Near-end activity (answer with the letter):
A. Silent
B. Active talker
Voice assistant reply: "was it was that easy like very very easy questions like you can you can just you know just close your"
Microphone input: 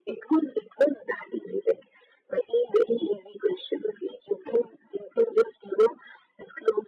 A